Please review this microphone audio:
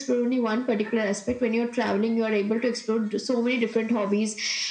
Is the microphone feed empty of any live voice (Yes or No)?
Yes